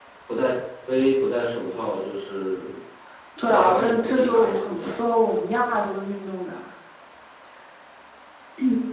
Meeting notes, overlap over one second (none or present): present